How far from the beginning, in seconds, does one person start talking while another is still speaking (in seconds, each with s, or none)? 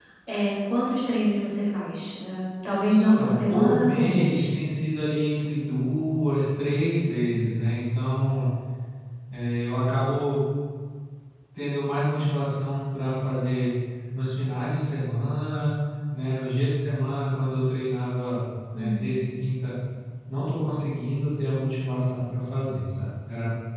3.0 s